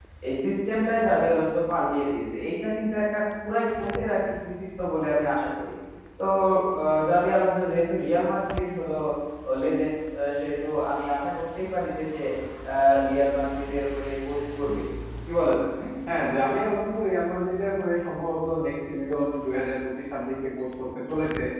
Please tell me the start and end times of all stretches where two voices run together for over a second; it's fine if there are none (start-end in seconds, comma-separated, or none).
none